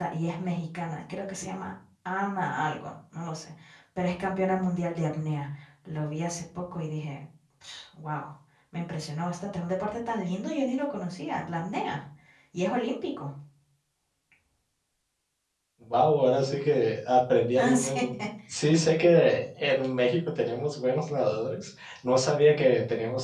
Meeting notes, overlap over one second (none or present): none